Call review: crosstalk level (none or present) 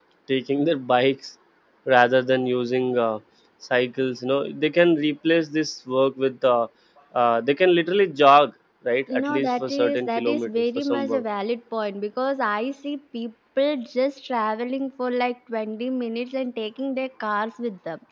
present